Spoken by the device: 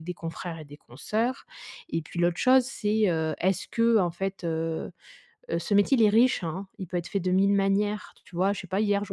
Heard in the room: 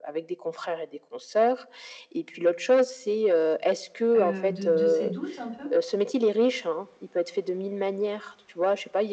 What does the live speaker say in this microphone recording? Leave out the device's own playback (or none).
heu, de de ces doutes, un peu?